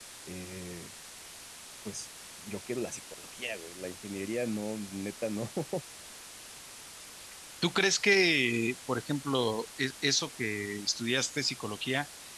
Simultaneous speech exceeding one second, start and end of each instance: none

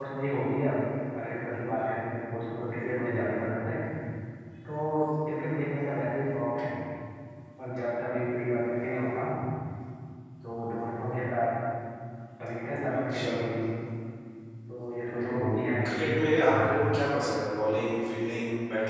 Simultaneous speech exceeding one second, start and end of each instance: none

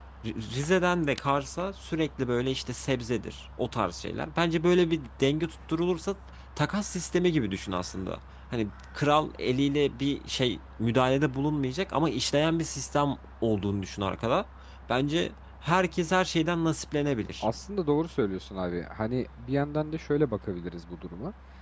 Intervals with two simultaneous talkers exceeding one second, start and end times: none

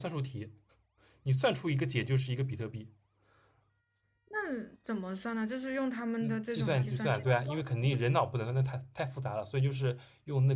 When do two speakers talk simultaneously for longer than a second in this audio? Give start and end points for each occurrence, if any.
6.2-7.5

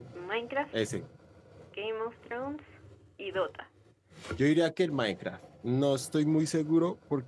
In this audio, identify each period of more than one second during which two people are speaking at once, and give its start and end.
none

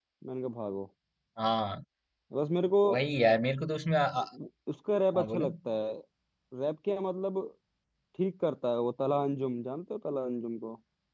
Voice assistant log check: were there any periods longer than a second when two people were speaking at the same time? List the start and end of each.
none

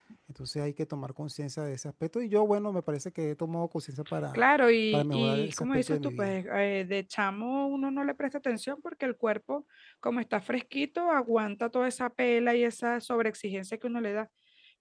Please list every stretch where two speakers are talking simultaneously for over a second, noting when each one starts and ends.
4.9-6.3

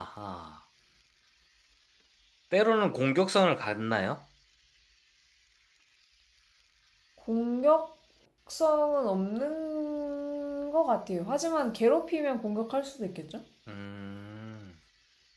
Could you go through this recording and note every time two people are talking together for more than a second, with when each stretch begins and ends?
none

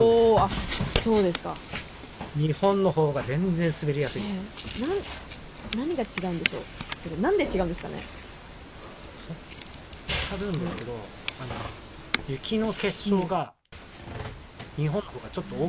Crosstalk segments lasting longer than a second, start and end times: none

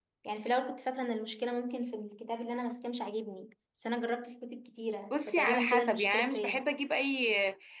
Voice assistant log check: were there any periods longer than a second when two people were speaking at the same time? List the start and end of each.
5.1-6.6

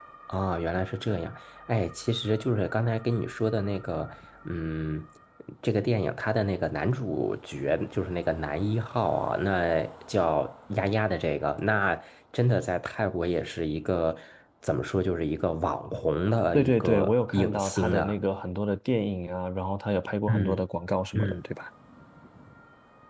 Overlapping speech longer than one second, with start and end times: 16.5-18.1

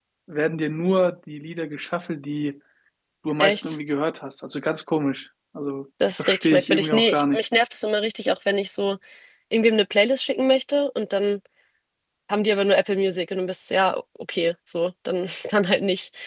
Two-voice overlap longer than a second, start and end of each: 6.2-7.4

